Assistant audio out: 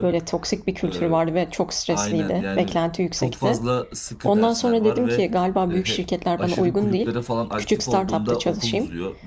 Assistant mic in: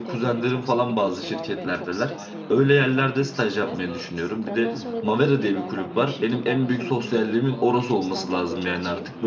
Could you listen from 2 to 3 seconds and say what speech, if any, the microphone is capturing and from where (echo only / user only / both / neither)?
both